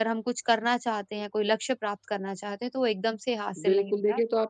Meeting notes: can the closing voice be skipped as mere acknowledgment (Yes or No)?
No